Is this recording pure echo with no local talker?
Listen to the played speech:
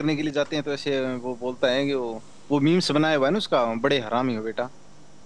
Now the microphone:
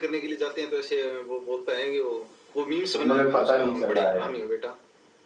No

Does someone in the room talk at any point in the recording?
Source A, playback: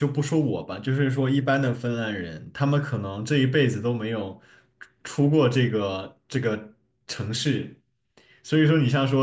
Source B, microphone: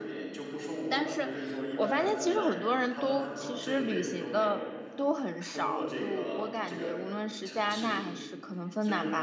Yes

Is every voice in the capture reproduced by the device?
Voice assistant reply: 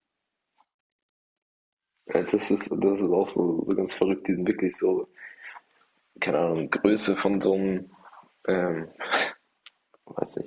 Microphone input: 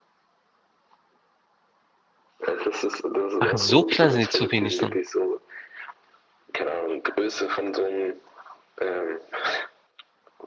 No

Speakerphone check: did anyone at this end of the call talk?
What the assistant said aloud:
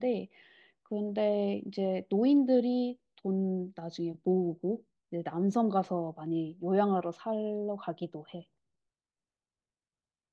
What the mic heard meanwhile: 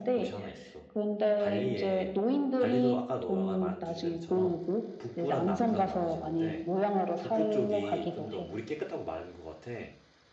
Yes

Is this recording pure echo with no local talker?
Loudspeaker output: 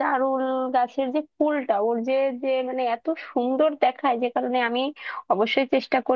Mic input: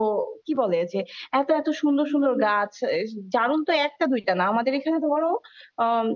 No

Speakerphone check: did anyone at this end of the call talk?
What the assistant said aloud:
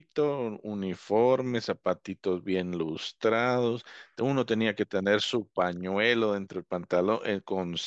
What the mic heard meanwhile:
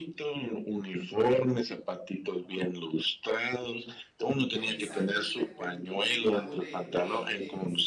Yes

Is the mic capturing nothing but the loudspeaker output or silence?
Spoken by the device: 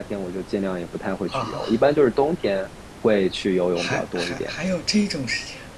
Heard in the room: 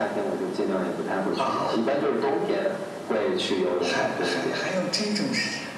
Yes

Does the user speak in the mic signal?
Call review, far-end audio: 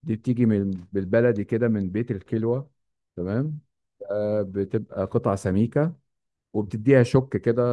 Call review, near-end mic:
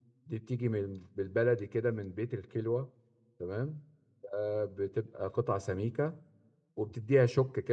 No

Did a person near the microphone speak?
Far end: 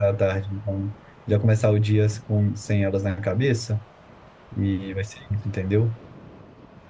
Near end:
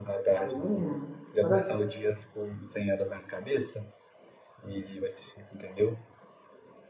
Yes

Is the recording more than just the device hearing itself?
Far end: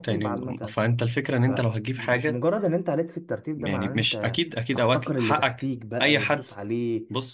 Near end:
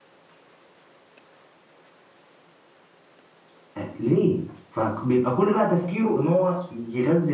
Yes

